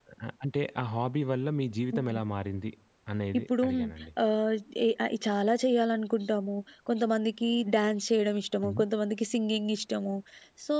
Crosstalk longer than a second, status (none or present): none